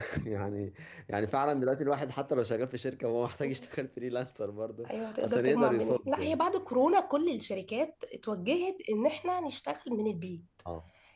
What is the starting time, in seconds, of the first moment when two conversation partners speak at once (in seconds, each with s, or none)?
4.8 s